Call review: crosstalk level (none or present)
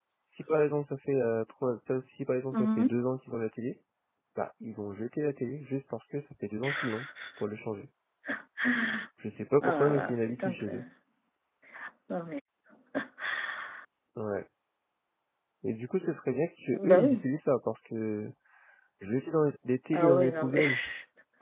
present